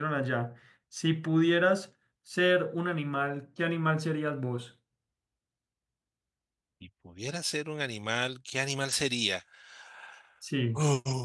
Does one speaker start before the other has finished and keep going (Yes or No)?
No